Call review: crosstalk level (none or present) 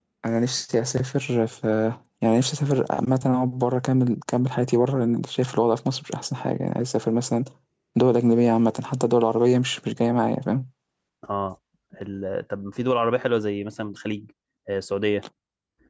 none